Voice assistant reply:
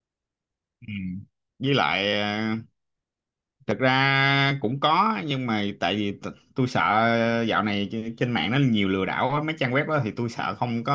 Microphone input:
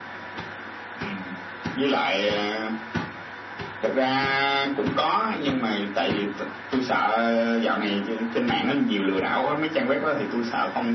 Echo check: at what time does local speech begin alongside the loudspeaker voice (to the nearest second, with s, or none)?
none